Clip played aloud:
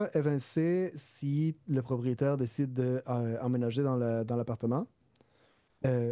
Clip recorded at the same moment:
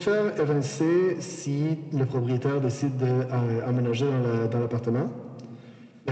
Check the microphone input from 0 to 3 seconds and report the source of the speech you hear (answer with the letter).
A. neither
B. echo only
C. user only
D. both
B